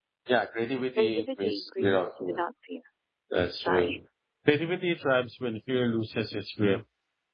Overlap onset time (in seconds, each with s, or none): 1.0 s